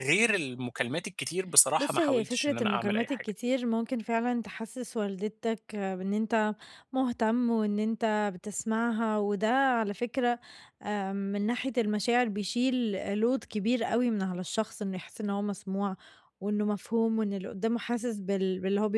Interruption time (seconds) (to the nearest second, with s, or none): 2 s